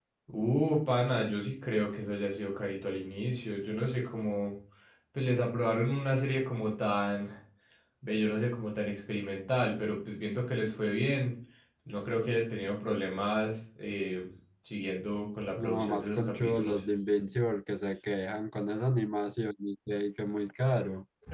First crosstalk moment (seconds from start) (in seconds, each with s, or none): 15.6 s